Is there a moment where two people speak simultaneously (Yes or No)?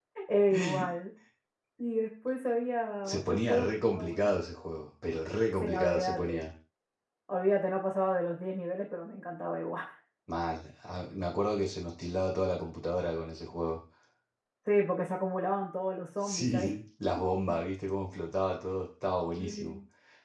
Yes